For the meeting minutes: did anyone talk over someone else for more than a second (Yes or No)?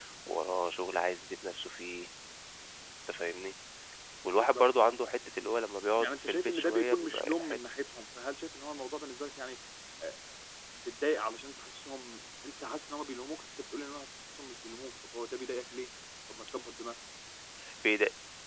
Yes